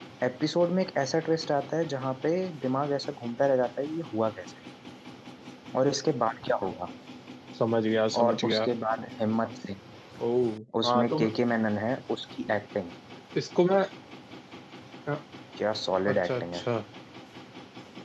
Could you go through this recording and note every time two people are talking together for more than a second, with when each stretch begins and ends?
none

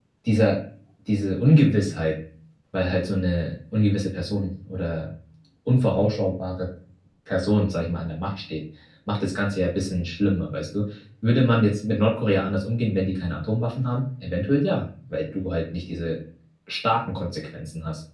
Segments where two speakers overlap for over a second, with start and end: none

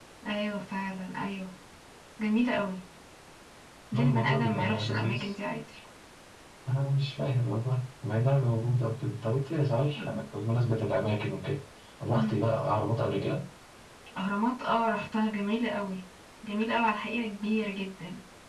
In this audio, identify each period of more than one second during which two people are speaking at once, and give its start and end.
3.9-5.2

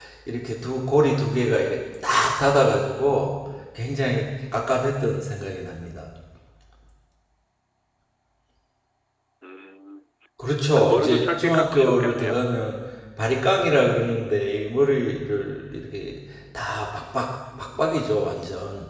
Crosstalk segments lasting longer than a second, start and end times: 10.8-12.4

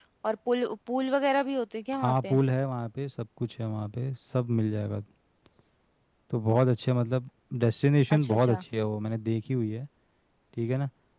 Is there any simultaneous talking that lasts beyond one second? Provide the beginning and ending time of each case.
none

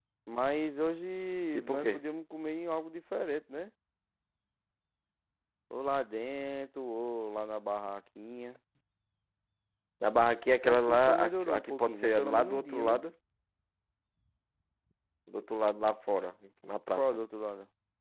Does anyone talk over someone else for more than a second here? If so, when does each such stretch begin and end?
10.6-13.0

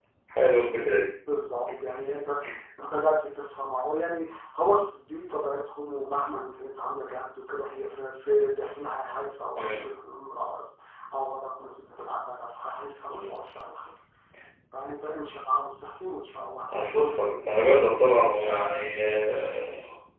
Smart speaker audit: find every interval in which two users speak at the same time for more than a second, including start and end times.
none

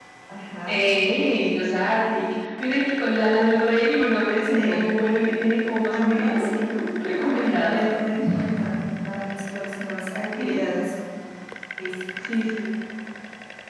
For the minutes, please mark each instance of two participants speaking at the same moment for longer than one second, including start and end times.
5.8-7.8

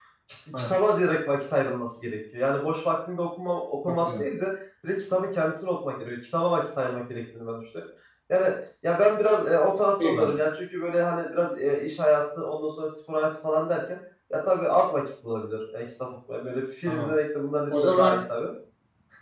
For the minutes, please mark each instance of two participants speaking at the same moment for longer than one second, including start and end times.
none

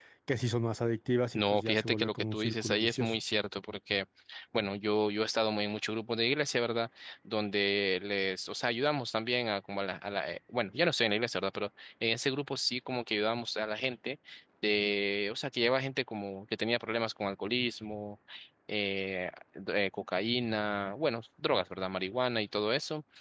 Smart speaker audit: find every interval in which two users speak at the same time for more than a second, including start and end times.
1.3-3.1

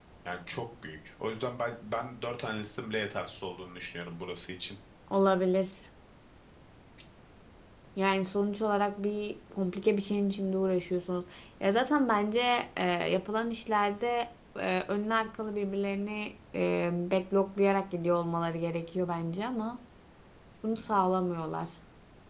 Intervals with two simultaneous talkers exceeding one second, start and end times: none

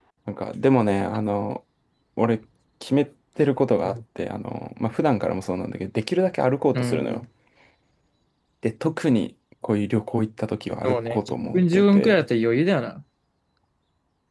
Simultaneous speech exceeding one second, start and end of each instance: 10.8-12.2

